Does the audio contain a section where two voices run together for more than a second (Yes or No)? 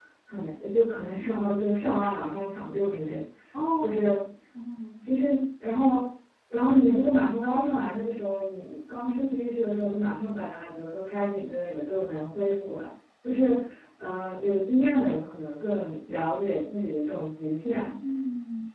No